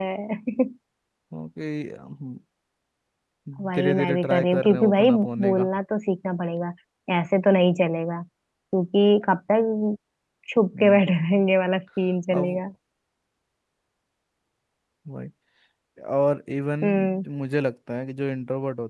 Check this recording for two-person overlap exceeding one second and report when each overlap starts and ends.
3.8-5.7

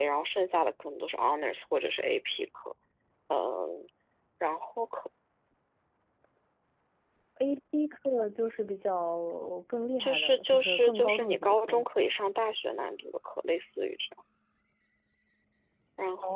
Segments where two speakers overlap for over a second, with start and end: 10.0-11.9

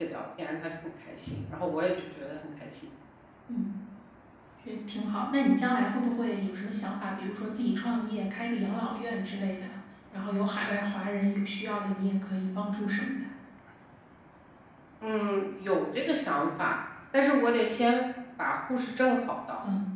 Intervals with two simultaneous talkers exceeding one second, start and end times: none

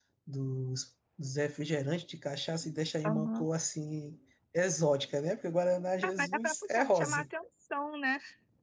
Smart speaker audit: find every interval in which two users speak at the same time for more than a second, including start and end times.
6.0-7.2

